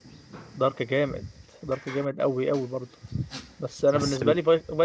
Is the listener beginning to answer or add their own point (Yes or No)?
No